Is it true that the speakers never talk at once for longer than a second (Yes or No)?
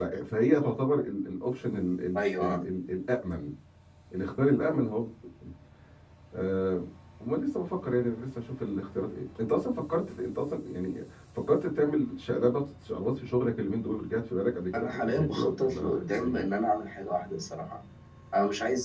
No